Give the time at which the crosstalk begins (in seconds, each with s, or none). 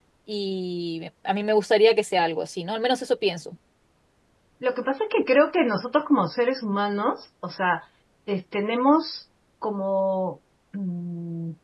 none